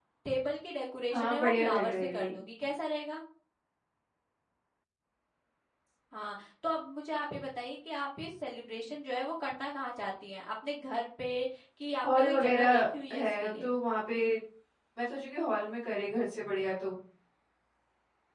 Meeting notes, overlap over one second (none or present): present